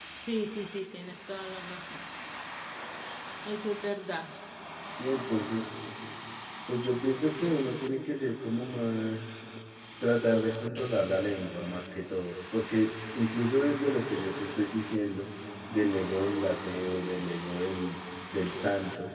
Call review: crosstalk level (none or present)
none